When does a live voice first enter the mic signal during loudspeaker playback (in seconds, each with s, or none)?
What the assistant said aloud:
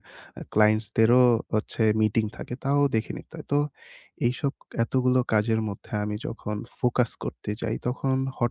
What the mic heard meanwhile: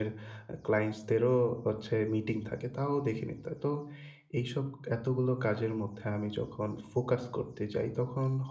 none